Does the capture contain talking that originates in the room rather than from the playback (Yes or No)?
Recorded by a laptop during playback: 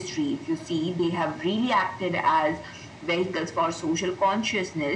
No